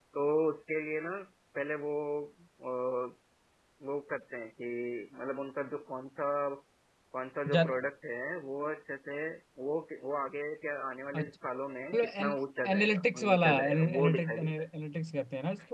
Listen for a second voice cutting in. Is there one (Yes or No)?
Yes